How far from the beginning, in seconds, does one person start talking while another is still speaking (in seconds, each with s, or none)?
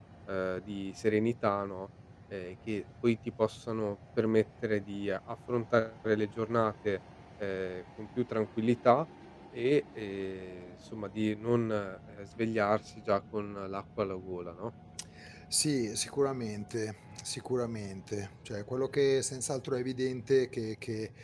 none